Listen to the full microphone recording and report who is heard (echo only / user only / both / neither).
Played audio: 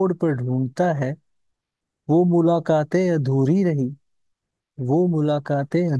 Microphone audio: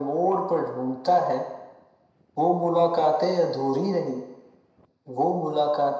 echo only